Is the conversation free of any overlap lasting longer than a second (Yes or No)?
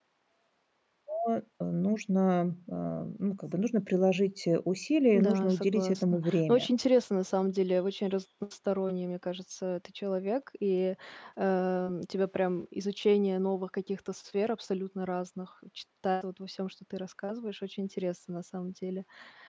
No